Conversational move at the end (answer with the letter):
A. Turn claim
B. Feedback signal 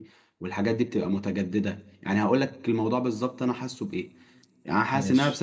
B